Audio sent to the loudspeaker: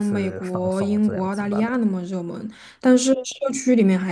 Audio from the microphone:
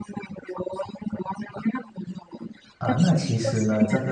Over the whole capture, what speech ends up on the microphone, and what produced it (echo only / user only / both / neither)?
both